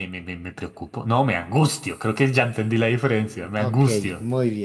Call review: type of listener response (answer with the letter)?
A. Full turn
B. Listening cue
A